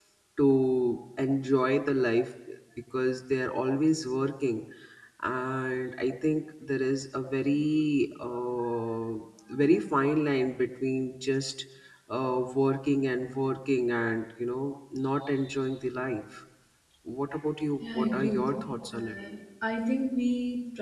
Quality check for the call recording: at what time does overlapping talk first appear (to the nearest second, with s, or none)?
18 s